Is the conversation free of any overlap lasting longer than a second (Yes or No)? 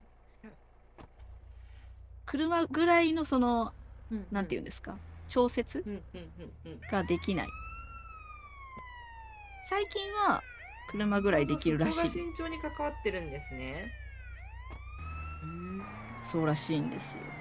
No